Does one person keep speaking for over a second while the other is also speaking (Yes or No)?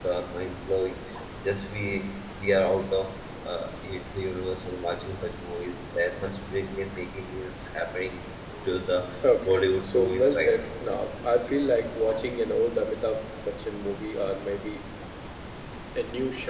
Yes